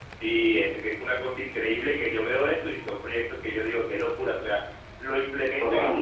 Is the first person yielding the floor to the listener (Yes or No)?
No